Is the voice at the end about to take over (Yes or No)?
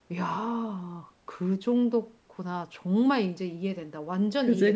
Yes